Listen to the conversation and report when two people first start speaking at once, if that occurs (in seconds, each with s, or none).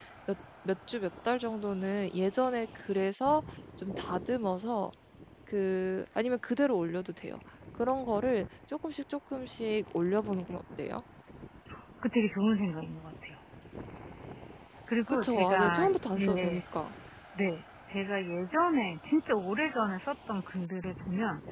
15.1 s